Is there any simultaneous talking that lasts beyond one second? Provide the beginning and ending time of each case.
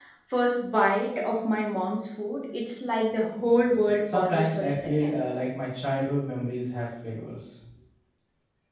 4.0-5.3

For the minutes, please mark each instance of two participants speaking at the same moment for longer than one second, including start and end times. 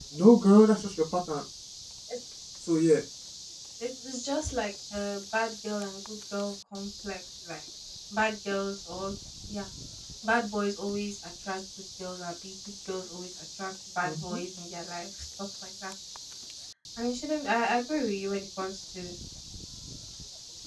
none

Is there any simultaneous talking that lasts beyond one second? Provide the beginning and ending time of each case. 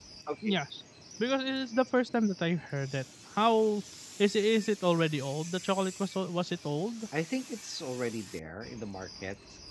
none

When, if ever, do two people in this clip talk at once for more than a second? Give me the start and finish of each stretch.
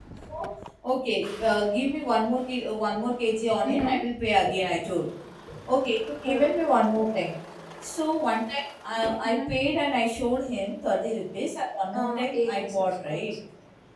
11.9-13.3

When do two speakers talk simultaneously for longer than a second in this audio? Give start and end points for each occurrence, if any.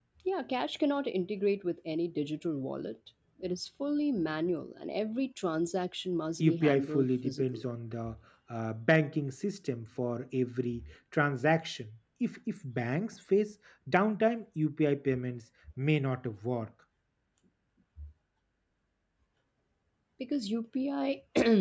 6.4-7.6

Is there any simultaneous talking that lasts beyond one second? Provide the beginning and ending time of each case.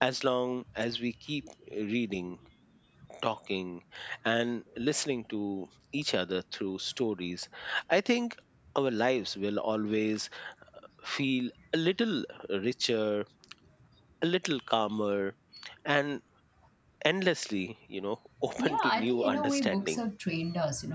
18.6-20.0

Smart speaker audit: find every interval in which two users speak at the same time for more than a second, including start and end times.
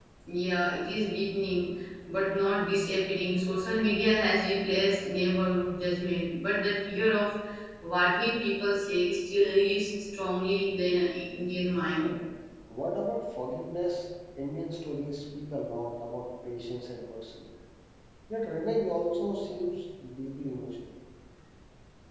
none

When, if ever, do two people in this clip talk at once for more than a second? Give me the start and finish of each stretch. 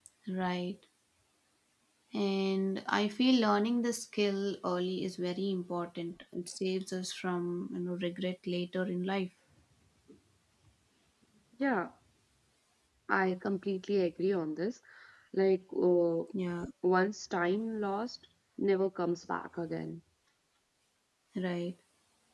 none

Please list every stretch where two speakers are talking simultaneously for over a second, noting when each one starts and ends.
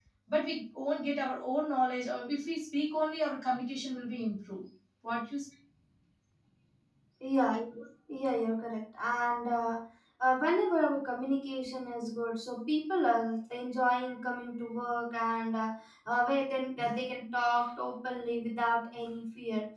none

